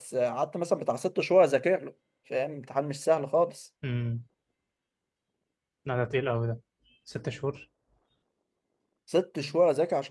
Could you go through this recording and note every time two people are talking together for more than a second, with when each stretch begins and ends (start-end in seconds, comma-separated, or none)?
none